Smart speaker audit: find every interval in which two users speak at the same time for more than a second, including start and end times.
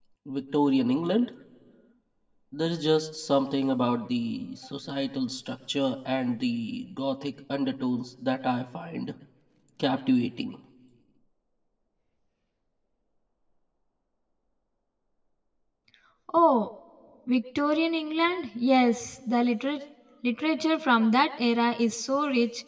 none

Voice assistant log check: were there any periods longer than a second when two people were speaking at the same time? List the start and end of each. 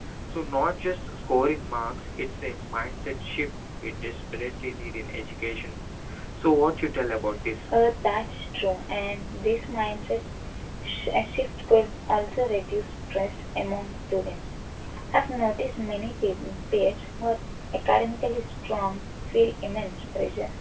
none

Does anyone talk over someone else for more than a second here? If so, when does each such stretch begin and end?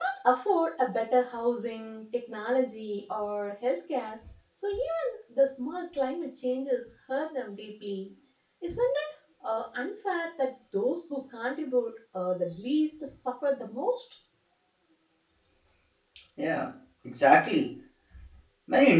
none

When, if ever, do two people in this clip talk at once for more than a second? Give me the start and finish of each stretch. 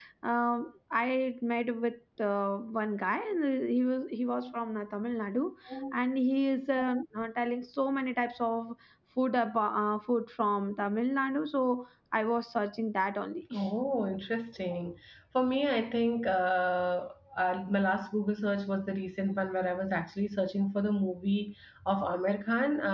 none

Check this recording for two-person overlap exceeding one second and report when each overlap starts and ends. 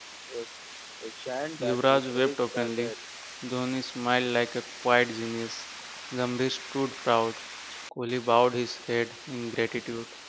1.6-2.9

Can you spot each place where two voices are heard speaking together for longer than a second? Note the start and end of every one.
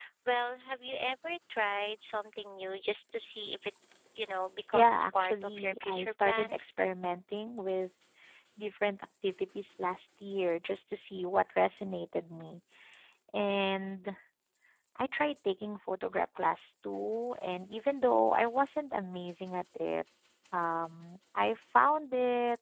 4.7-6.7

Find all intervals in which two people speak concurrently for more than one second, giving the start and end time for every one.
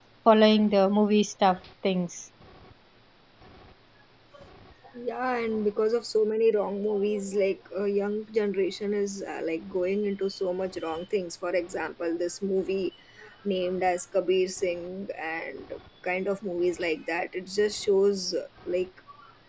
none

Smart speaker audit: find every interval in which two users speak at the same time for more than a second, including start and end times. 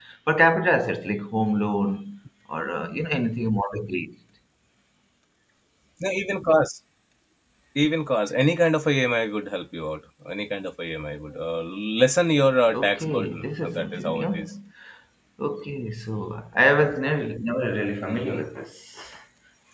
12.7-14.5

